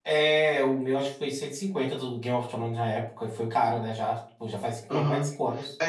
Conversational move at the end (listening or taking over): taking over